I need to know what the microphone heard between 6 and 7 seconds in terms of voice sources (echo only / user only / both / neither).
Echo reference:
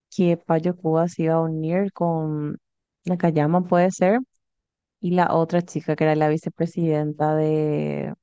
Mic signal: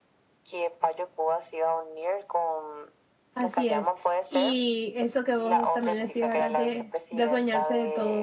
both